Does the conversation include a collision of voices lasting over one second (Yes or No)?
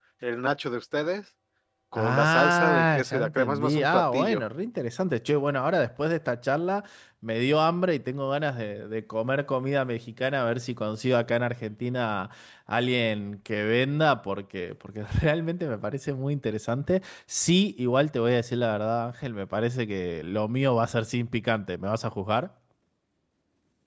Yes